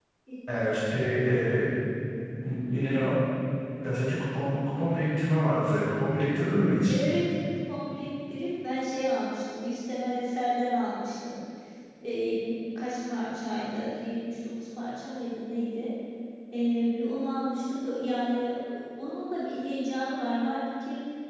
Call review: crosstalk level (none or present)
none